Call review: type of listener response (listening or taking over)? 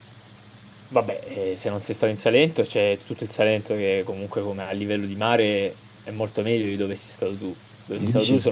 listening